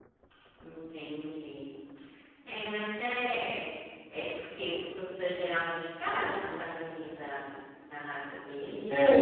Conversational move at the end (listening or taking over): taking over